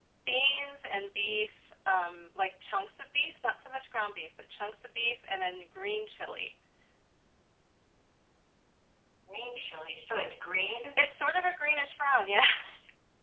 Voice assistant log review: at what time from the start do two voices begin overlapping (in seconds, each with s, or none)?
none